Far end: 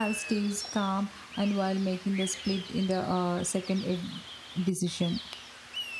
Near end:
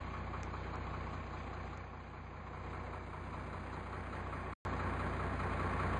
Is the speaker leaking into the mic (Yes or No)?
No